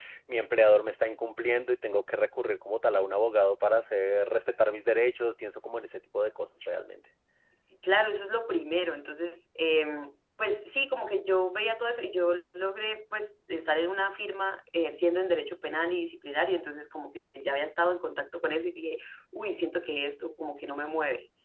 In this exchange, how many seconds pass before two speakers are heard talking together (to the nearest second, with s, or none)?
none